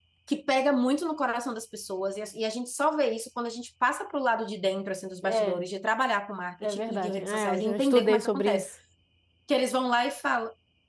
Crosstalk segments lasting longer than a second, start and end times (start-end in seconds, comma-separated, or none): 6.6-8.7